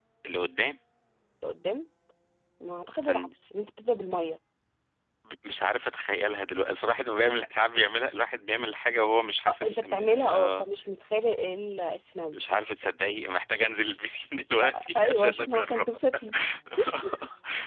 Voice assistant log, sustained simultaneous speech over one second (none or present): present